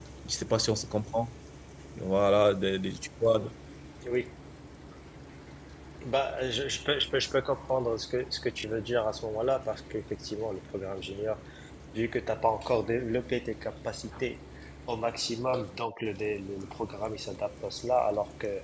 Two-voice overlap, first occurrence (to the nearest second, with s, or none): none